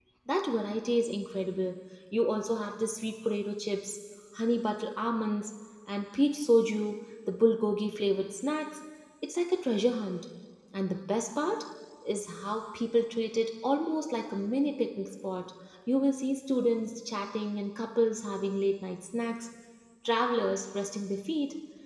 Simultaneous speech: No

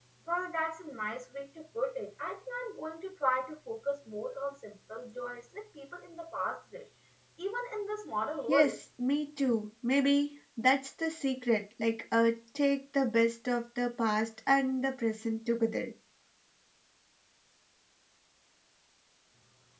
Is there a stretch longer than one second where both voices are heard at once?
No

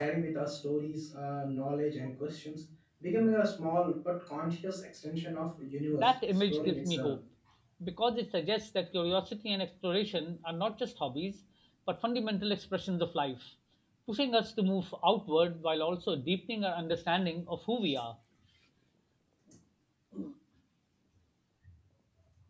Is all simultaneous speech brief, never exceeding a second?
No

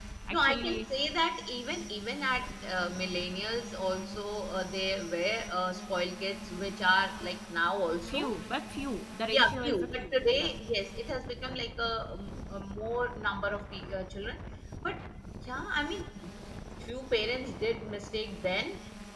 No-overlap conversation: No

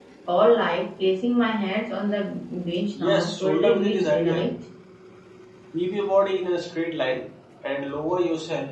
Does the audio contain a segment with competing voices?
Yes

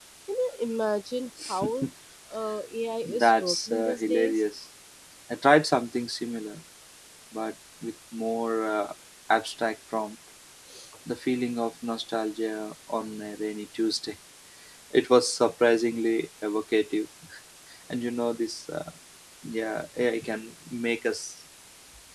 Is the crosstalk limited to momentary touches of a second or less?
No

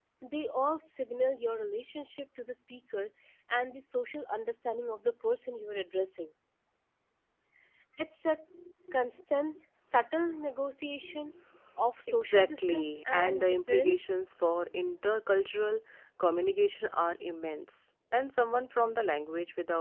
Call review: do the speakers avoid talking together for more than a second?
No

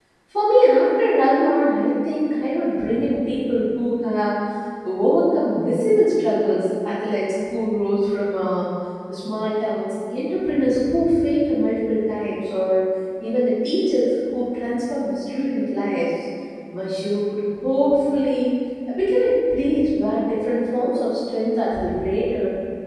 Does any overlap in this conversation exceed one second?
No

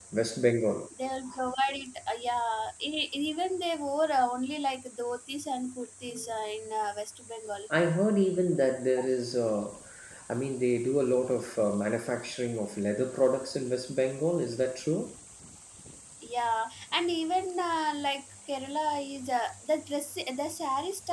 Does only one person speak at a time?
Yes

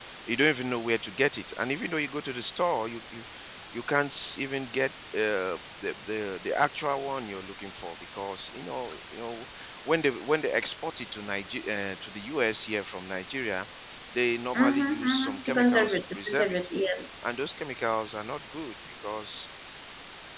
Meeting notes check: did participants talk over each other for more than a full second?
Yes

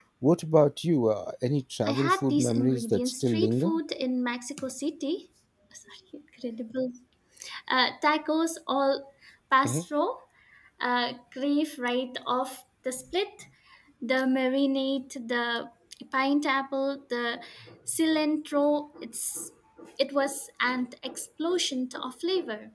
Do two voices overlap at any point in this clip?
Yes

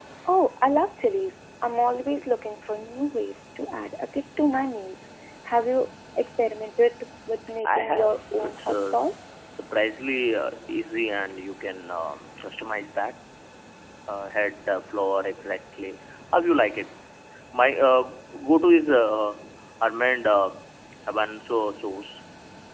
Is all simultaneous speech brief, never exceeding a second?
No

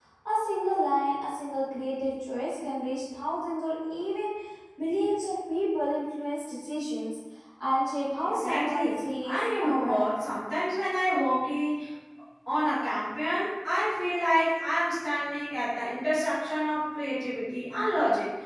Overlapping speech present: Yes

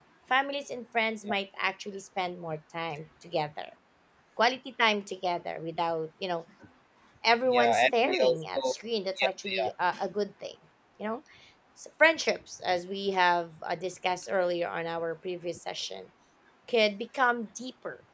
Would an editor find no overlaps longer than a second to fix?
No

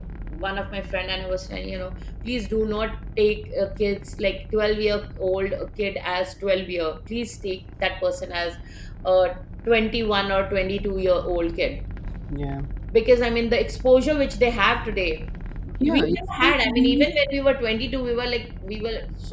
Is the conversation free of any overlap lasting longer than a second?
No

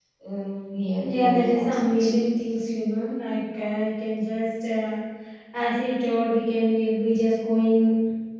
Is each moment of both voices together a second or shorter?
No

